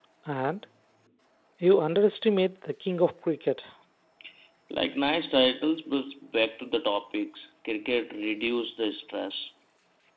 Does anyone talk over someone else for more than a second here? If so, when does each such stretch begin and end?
none

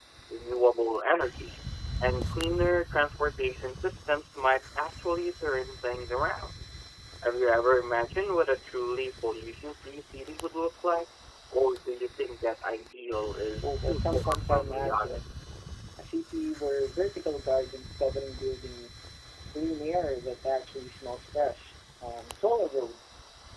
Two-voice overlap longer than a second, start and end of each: 13.6-15.2

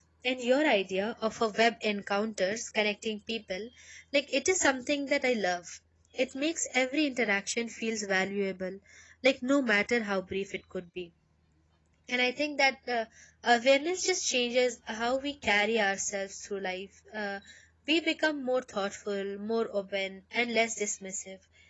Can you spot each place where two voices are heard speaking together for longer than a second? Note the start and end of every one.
none

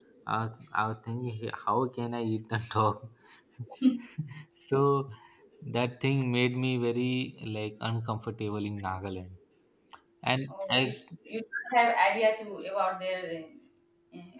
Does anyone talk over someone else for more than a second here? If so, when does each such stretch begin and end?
none

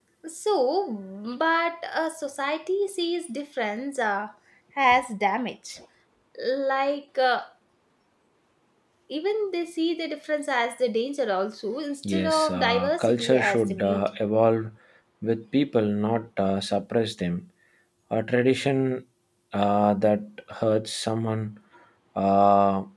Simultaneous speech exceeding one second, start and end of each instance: 12.1-14.1

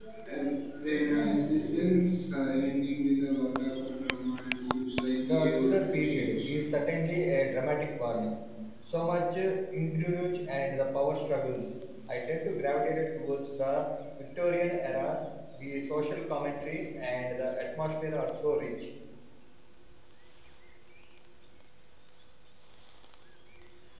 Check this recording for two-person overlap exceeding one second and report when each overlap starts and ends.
5.3-6.5

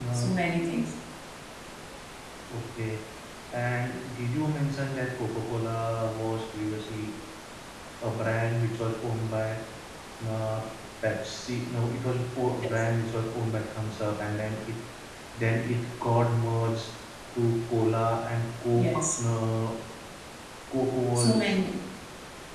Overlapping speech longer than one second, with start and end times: none

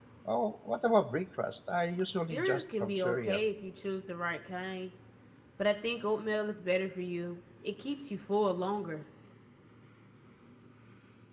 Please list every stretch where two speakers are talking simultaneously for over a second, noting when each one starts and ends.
2.3-3.5

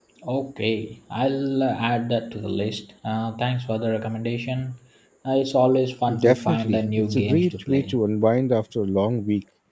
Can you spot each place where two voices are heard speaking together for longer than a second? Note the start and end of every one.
6.2-8.0

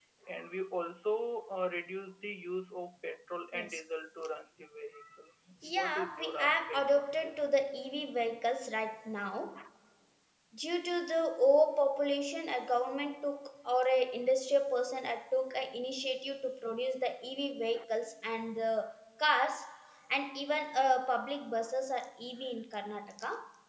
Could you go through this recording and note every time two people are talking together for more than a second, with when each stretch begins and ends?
5.6-7.3

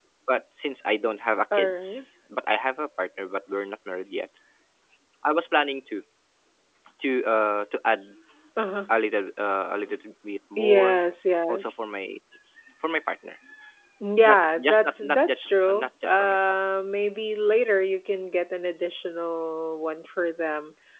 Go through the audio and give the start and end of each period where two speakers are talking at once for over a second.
14.2-16.5

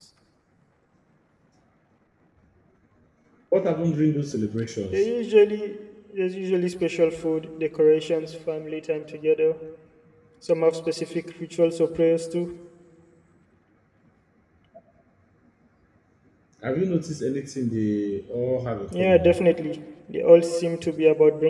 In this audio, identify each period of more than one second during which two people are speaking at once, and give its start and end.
none

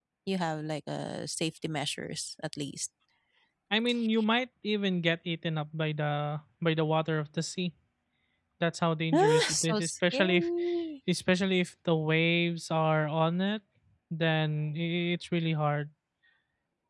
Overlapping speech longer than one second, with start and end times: 9.2-10.5

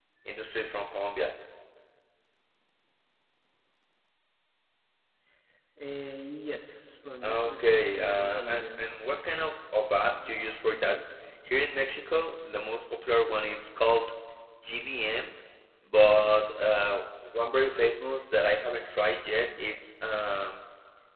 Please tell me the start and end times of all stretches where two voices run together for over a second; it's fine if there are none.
7.2-8.8

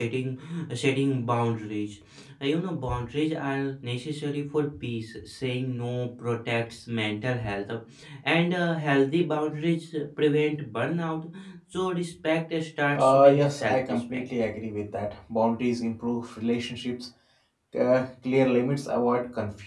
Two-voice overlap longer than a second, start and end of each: 13.0-14.2

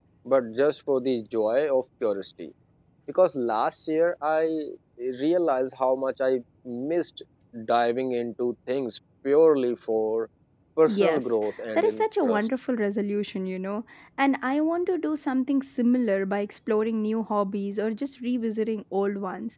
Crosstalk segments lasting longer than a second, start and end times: 10.9-12.5

